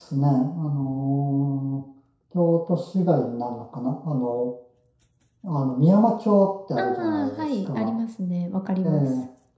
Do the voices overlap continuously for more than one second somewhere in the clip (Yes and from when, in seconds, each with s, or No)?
Yes, from 6.8 s